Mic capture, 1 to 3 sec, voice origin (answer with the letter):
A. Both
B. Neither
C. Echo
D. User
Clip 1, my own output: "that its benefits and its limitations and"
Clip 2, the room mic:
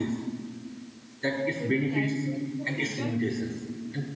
A